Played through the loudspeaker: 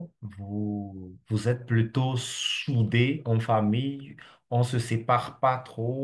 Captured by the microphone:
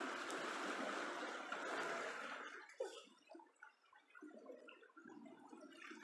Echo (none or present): none